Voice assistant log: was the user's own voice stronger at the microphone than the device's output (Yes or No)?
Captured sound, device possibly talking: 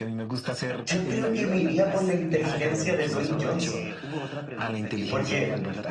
Yes